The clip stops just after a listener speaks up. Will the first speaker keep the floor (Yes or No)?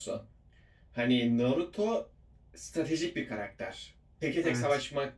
Yes